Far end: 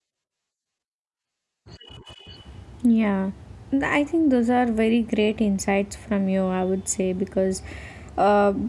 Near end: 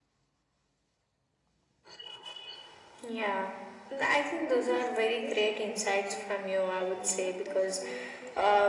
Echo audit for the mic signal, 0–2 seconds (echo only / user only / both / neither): neither